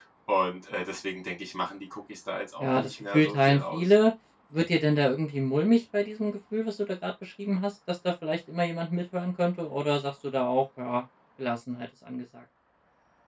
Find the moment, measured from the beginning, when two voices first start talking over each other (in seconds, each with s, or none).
2.6 s